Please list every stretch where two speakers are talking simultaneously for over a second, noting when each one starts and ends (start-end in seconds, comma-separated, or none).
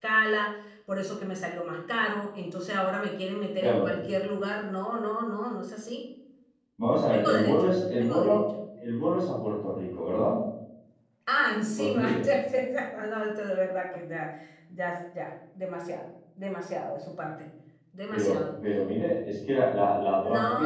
6.9-8.4